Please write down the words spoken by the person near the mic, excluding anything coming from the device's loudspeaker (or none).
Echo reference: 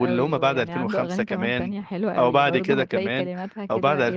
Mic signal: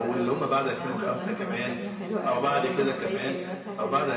none